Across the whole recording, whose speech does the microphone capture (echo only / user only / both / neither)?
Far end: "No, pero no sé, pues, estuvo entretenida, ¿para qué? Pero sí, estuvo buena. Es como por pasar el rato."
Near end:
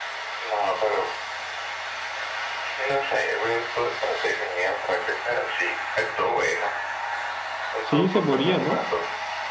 both